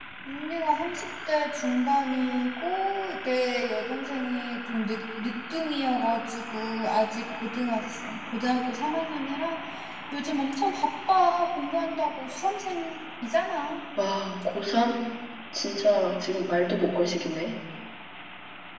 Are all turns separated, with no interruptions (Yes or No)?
Yes